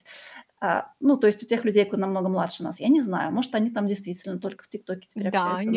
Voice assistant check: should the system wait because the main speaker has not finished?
No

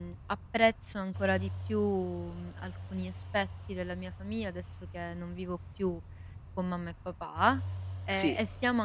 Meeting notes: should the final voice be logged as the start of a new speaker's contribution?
No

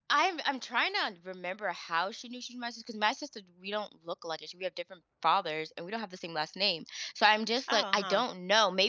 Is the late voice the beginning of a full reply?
No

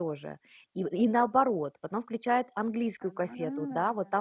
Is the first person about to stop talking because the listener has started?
No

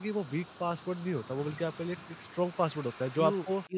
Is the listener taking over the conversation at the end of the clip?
Yes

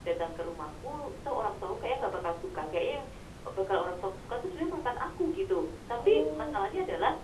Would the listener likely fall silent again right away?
Yes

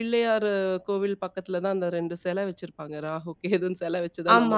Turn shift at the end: Yes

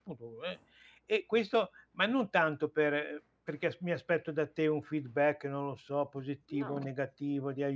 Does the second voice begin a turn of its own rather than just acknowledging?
No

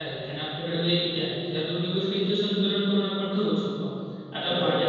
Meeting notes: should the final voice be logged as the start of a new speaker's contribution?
No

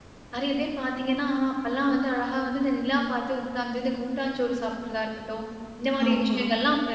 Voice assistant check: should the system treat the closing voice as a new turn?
No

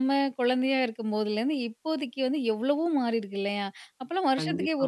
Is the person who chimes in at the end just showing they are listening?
Yes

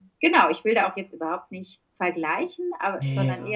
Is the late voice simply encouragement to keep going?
Yes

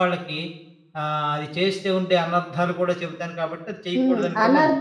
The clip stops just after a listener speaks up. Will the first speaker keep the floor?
No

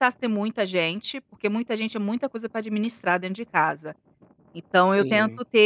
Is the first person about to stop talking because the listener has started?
No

